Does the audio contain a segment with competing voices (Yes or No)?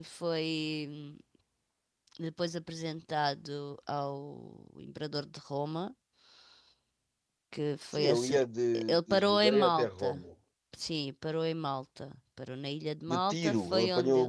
Yes